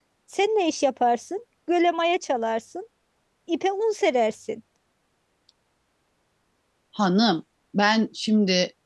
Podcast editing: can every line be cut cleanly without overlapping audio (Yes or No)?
Yes